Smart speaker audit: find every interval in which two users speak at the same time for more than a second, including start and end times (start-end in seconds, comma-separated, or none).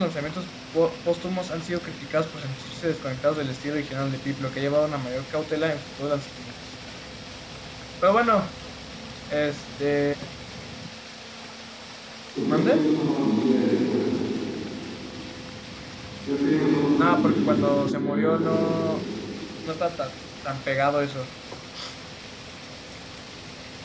17.0-18.9